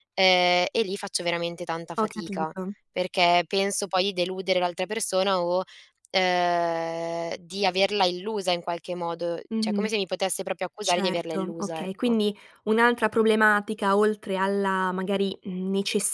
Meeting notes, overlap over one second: present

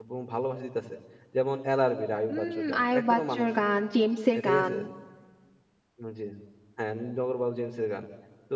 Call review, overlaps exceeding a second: present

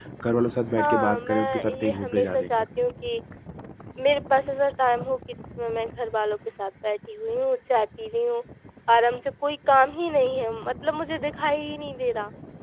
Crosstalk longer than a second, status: present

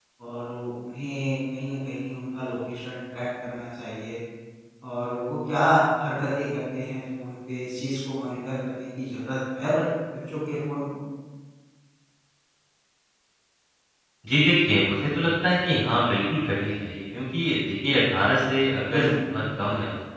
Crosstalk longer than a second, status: none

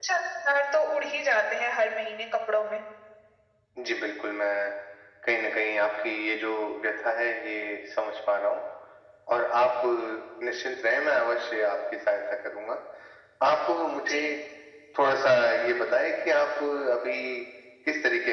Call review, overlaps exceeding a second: none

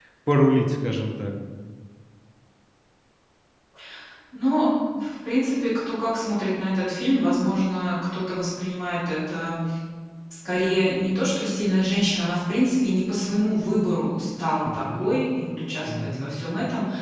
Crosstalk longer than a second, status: none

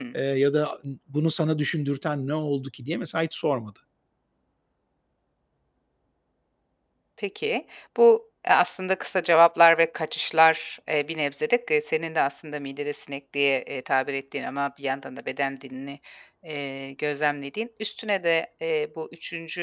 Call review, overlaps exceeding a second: none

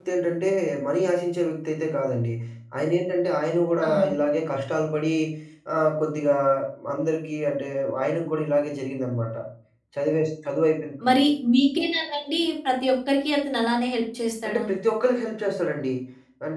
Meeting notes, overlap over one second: none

